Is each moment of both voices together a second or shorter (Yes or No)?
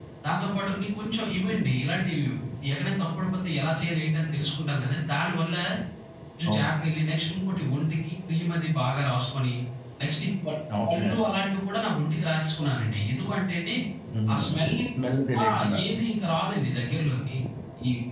Yes